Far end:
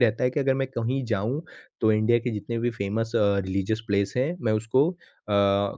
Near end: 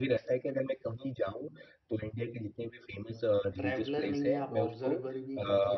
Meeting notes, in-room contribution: present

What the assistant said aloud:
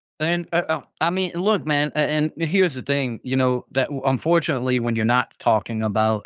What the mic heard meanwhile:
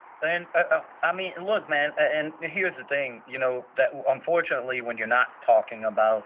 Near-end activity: none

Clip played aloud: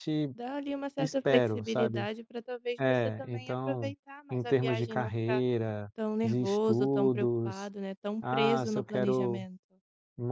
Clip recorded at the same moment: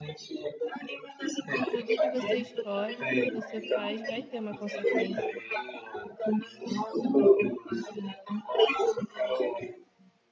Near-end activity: present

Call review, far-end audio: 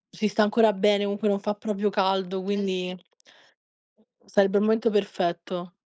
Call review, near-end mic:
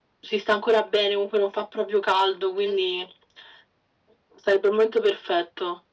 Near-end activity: none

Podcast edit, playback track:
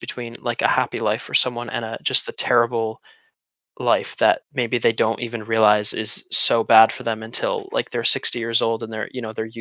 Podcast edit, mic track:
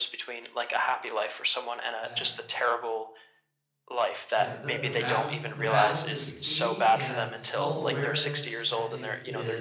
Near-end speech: present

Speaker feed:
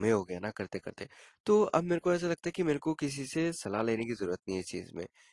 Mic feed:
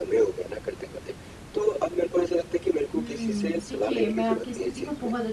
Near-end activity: present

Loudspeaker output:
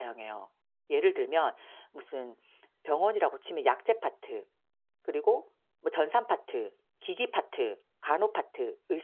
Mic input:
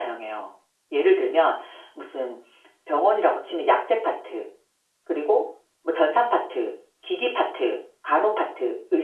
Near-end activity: none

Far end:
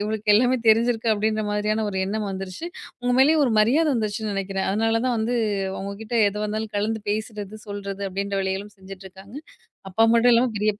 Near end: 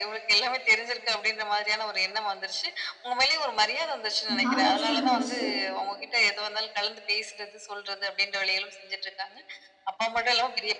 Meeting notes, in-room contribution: present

